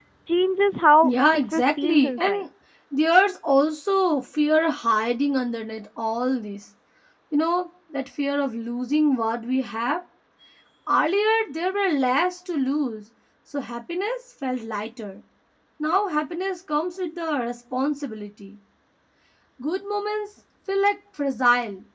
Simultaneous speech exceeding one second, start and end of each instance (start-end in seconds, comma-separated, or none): 1.0-2.4